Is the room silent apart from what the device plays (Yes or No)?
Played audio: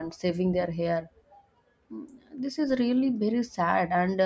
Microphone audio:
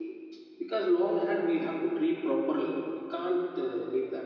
No